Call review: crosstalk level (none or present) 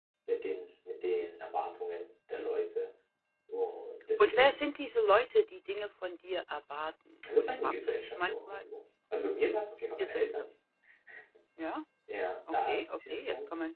present